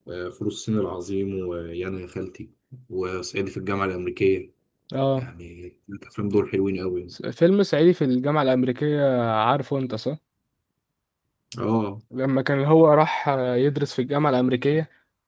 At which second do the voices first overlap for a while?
none

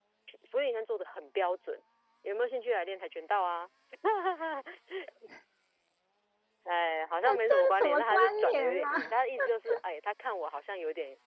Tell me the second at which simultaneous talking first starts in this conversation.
7.2 s

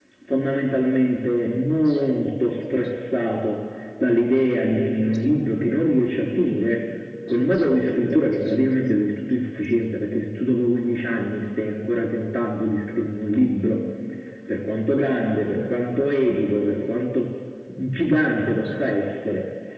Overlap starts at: none

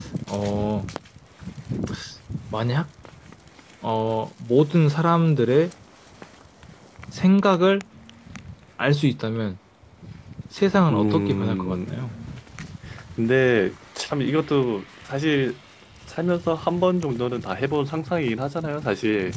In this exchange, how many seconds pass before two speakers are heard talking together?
10.9 s

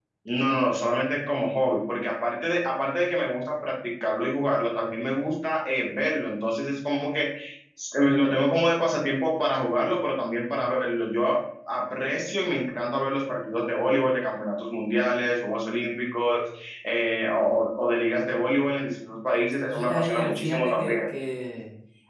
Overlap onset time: 19.7 s

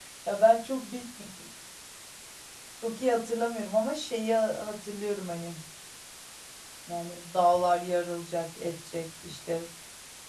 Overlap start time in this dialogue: none

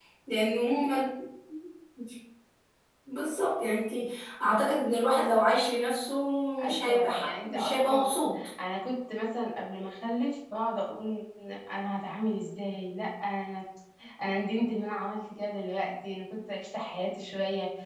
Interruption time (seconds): 6.6 s

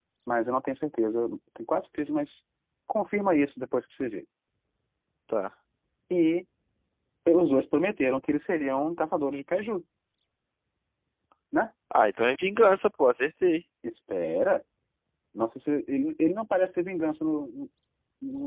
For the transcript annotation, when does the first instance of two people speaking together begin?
none

